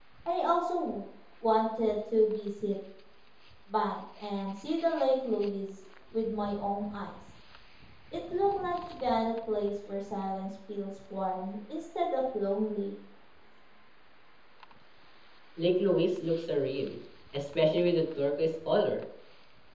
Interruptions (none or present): none